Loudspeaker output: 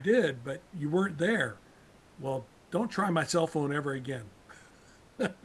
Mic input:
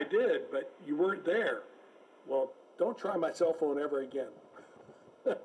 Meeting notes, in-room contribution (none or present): none